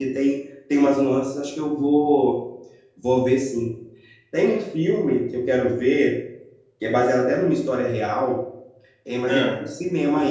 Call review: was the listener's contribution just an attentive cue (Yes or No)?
Yes